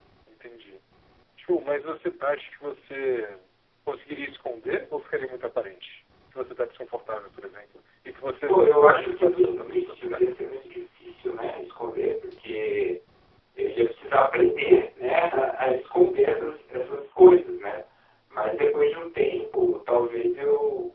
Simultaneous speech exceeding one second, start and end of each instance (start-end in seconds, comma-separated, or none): 8.5-10.0